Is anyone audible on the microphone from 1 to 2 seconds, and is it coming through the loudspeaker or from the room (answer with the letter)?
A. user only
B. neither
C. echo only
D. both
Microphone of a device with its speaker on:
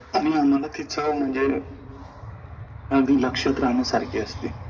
C